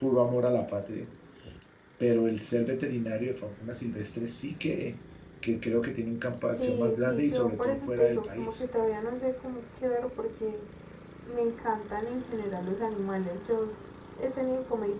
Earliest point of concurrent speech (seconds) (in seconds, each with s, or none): 6.5 s